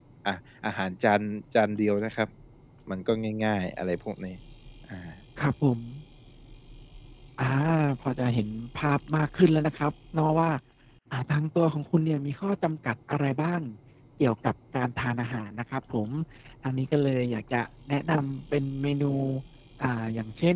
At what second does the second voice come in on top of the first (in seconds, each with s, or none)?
none